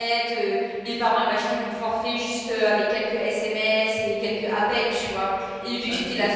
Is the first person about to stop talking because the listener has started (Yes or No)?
No